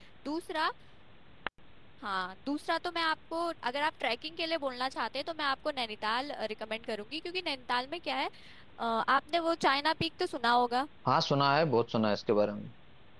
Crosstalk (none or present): none